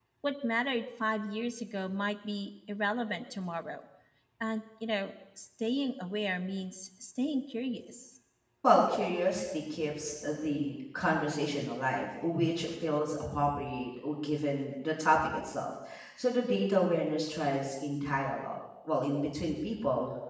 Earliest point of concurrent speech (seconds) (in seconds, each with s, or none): none